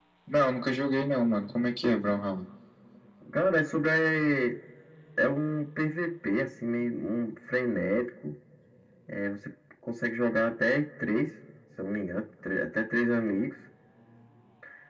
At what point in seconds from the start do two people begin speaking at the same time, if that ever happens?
none

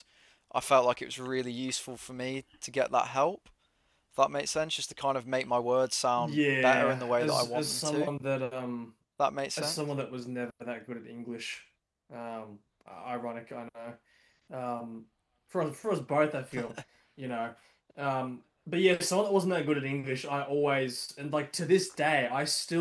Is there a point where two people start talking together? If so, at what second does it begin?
6.2 s

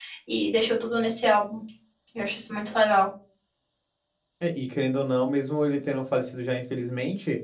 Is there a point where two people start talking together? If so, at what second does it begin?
none

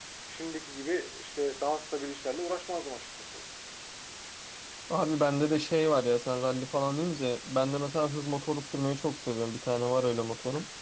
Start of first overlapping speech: none

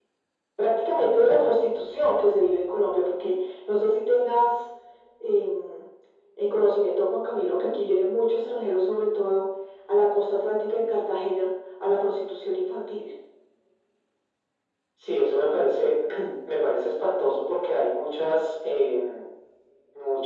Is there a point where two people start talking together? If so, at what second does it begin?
none

